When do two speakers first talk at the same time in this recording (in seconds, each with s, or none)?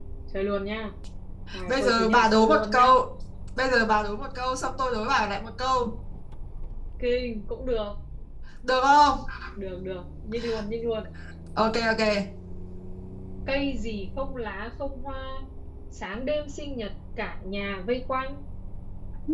1.7 s